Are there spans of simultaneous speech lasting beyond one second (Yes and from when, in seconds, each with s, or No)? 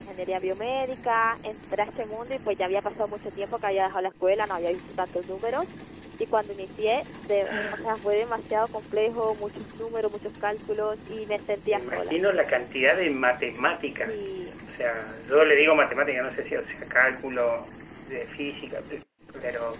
No